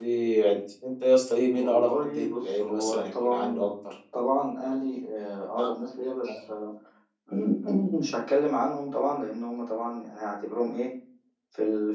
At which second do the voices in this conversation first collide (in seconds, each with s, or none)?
1.6 s